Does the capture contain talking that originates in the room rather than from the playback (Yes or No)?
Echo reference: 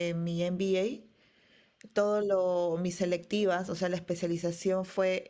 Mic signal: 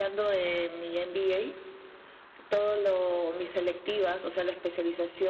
No